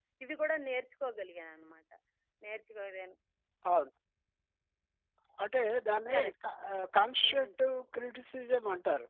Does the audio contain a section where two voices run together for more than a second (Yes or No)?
No